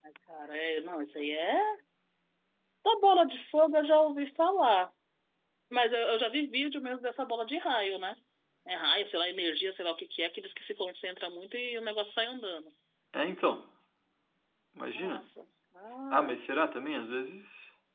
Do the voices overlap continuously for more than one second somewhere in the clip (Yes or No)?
No